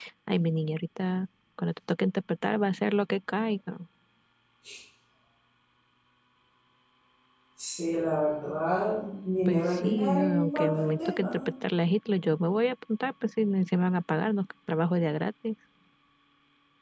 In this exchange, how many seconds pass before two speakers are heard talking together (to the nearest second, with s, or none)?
9 s